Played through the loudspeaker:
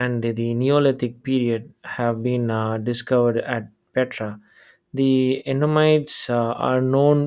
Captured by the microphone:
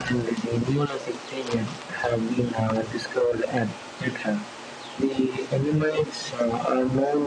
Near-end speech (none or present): none